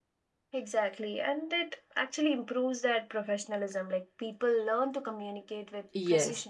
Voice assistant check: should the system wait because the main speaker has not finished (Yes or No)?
No